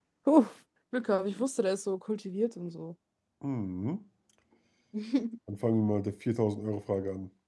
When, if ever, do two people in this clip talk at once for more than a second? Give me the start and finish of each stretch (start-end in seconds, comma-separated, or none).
none